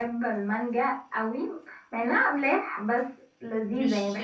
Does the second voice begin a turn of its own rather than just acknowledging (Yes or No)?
Yes